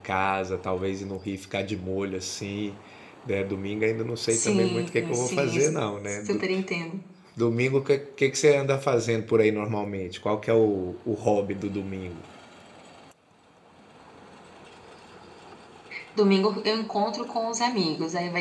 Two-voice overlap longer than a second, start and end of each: 4.3-5.6

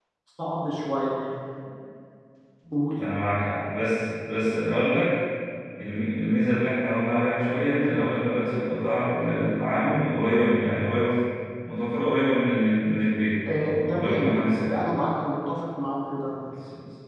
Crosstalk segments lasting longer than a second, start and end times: 13.6-14.8

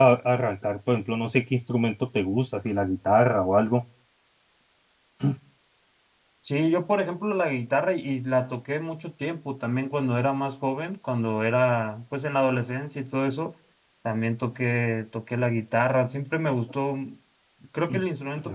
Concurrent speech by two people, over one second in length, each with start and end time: none

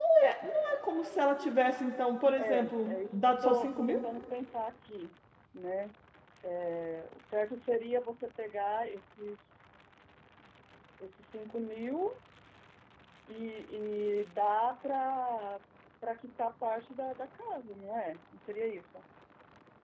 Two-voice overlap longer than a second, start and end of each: 2.4-4.0

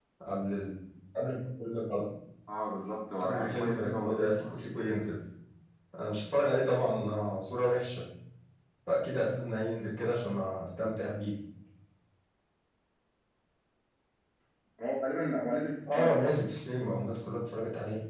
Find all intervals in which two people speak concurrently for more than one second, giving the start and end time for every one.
3.2-4.6

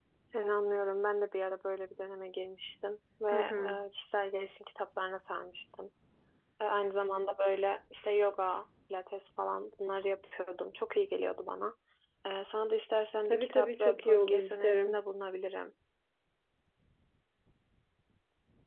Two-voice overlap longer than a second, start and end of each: 13.3-15.0

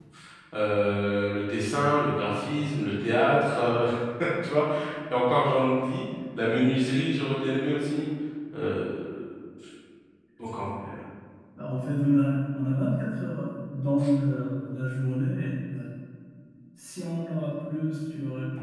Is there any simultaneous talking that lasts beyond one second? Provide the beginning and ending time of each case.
none

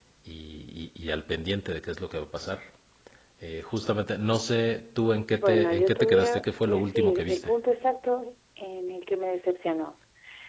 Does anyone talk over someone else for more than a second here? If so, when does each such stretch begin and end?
5.3-7.5

